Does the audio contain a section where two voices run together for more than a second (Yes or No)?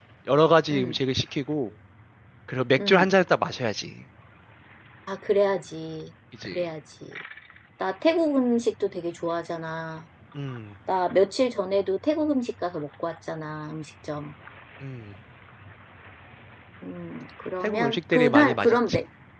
Yes